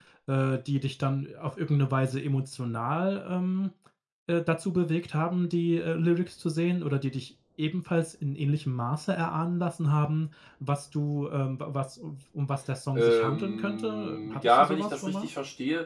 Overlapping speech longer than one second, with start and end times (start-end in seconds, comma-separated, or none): 12.9-15.3